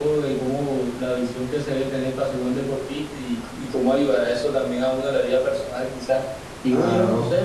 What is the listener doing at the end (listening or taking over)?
listening